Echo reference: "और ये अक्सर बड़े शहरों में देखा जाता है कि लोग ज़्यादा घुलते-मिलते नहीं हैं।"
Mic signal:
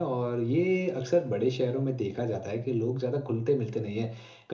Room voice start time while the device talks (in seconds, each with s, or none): none